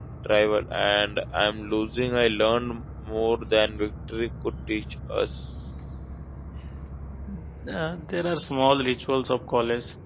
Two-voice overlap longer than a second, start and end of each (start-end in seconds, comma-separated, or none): none